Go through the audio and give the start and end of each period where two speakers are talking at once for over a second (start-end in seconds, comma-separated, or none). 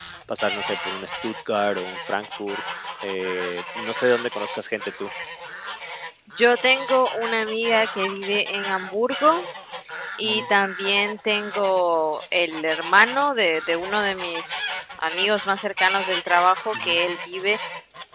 none